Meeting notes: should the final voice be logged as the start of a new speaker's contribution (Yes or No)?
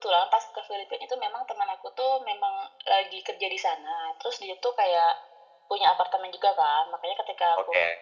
No